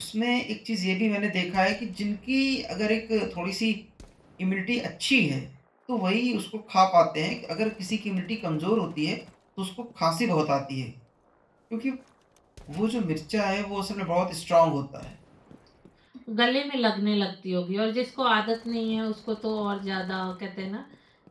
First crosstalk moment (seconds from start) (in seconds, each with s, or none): none